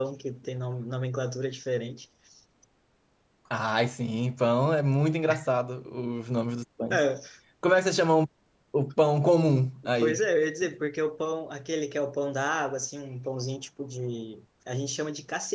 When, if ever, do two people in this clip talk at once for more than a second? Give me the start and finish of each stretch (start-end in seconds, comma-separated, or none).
none